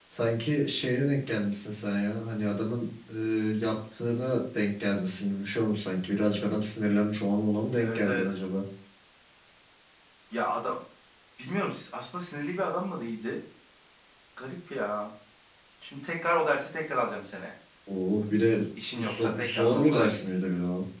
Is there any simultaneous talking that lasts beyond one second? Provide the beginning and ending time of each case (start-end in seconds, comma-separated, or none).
18.9-20.2